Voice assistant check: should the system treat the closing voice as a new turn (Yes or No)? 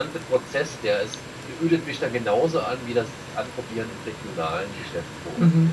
Yes